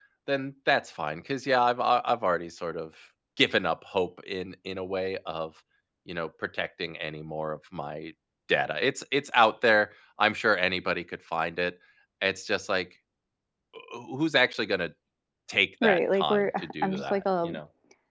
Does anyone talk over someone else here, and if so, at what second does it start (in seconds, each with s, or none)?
15.8 s